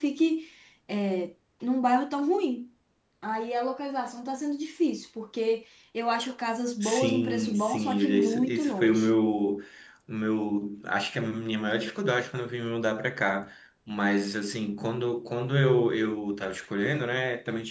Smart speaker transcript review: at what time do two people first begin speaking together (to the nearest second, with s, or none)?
7 s